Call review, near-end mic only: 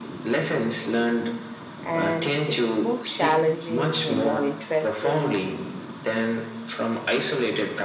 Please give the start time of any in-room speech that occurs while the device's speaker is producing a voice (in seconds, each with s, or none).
1.8 s